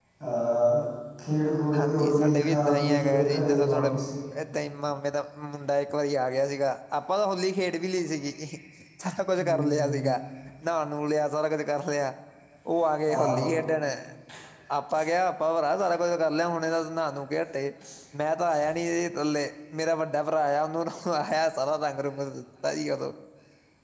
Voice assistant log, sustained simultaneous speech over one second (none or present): present